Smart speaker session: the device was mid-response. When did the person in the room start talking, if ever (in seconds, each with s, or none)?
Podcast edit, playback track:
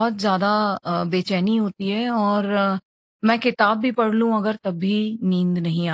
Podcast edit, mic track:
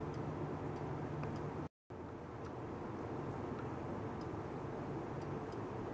none